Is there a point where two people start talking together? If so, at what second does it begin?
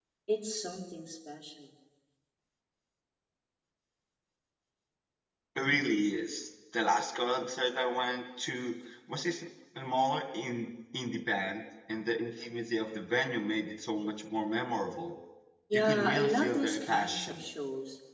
15.7 s

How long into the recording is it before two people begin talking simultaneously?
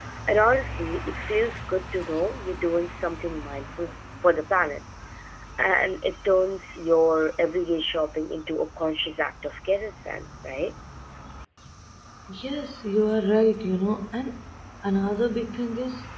none

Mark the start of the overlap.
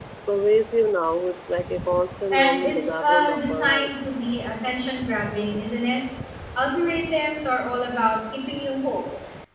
2.3 s

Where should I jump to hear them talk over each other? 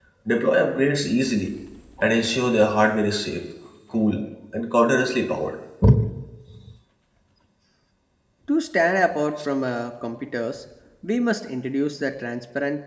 none

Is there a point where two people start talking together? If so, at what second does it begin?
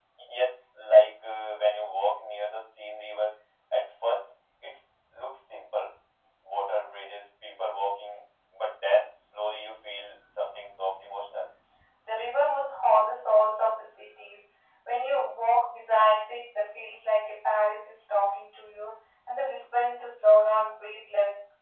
none

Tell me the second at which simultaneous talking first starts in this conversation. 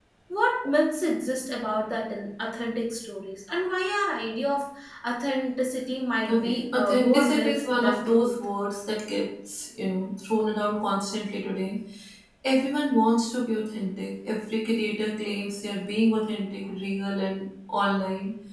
6.3 s

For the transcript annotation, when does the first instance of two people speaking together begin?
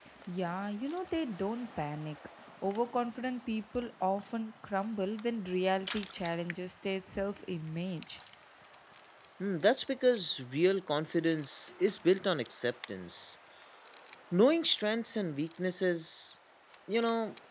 none

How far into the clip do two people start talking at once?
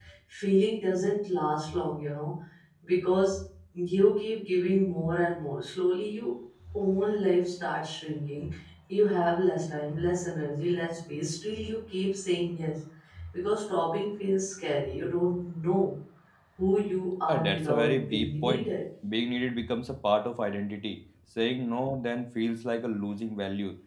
17.3 s

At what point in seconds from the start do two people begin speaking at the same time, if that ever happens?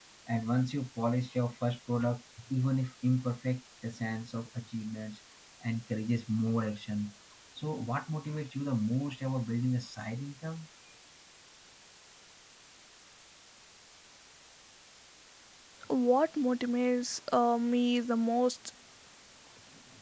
none

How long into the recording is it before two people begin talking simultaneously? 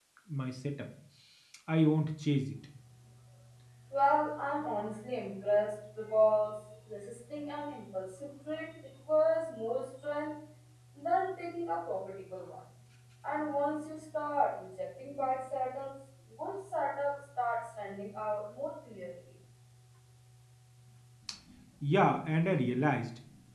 none

